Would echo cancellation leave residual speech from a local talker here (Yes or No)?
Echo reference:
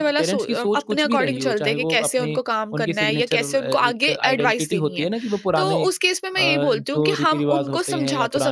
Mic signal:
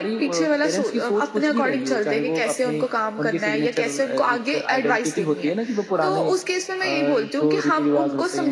No